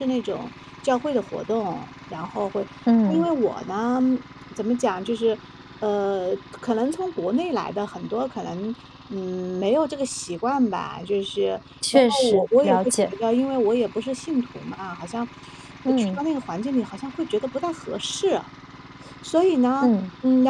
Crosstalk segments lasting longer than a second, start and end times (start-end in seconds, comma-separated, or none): 11.9-13.1